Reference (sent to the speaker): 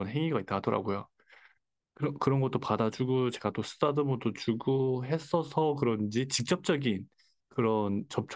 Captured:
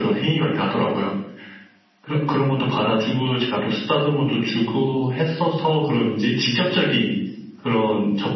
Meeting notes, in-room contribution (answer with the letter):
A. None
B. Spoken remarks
A